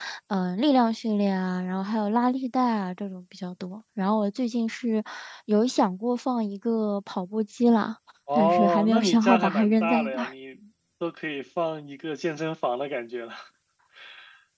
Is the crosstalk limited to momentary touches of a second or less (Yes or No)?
No